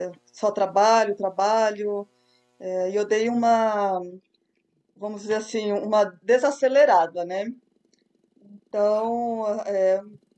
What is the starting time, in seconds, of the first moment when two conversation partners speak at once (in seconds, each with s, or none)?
none